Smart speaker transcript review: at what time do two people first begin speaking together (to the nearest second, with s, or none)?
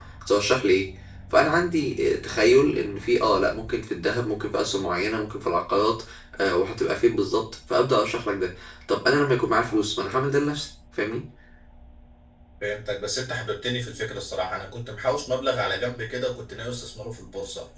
none